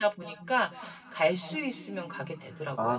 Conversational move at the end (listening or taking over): taking over